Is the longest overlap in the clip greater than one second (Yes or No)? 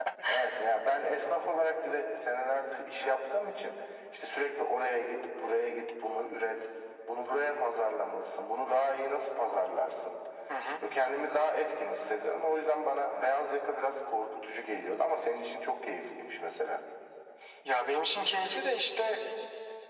No